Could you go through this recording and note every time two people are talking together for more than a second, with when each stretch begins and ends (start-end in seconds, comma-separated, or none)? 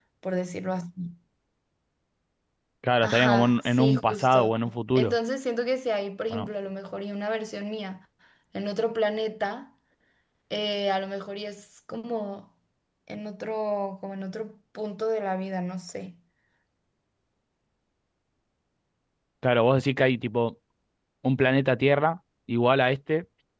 3.0-4.5